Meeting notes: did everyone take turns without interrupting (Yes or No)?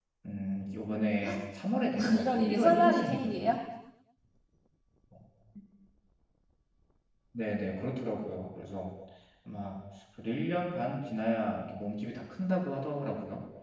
No